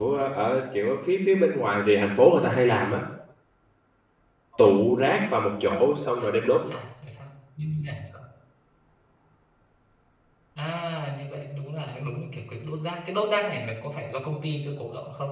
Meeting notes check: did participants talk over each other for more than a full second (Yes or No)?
No